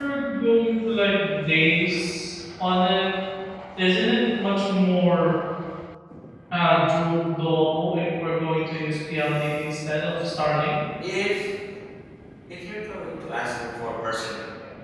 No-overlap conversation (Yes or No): Yes